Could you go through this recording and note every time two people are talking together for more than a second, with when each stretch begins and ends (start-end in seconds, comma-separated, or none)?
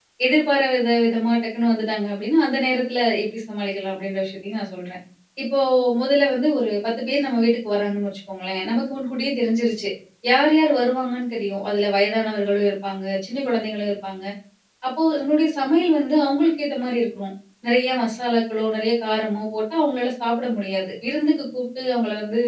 none